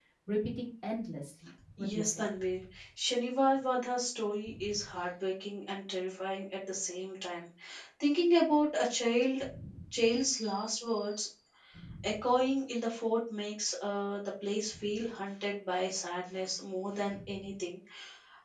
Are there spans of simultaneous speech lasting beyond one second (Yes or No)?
No